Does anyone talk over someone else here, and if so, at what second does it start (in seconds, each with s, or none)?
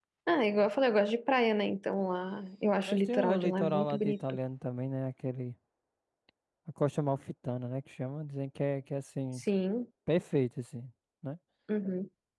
2.8 s